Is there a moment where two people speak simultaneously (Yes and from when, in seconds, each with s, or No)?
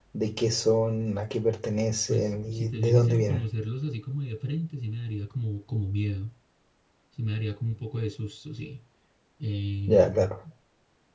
Yes, from 2.1 s